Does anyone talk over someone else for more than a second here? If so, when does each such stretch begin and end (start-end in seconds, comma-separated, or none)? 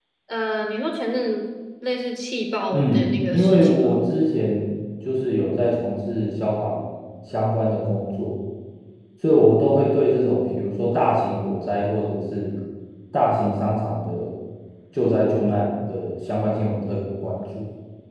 2.7-3.9